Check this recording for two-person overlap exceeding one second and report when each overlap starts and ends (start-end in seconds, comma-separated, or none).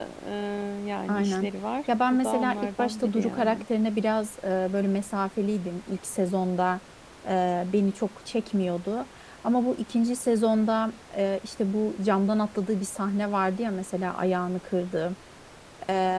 2.1-3.6